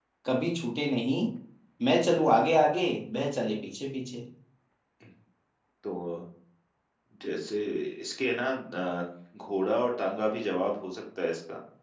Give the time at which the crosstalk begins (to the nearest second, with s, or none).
none